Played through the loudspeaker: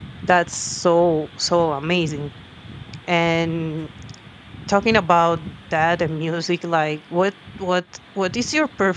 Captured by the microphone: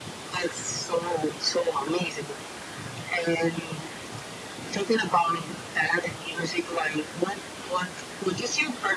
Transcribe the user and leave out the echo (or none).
none